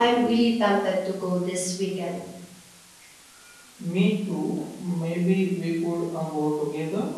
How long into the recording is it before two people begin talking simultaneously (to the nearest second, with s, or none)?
none